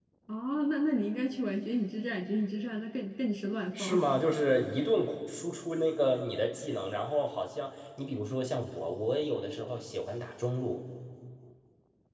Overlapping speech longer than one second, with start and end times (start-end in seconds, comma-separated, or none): none